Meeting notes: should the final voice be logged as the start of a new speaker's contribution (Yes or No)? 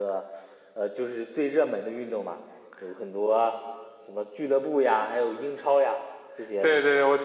Yes